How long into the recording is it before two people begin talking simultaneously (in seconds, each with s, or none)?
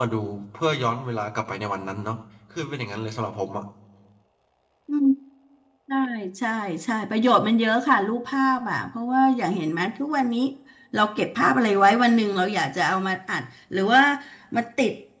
none